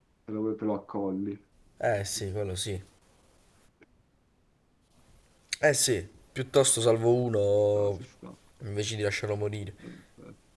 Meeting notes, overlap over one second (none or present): none